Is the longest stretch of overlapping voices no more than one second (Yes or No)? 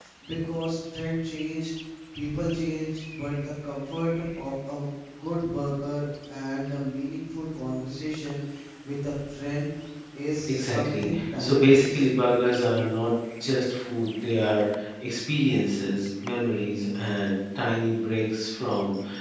No